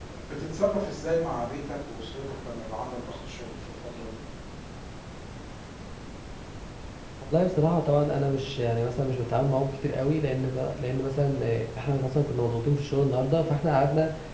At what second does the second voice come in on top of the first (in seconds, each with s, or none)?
none